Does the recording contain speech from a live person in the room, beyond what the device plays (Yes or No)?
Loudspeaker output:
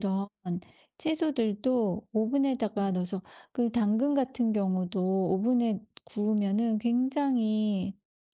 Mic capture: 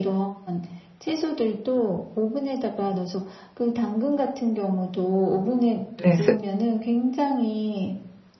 Yes